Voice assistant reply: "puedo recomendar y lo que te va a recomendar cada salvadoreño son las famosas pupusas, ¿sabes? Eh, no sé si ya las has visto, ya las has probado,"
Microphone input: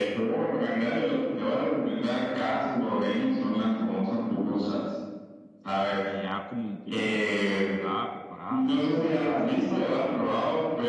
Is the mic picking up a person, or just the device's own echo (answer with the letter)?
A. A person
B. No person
A